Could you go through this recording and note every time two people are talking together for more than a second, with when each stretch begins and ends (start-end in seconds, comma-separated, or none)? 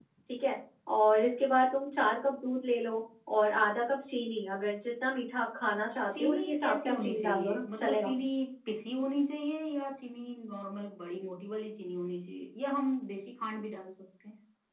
6.2-8.1